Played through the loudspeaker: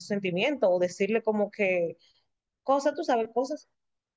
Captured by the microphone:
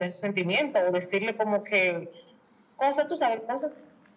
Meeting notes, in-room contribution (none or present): none